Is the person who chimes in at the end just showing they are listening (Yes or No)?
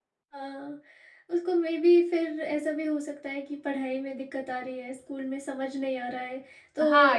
No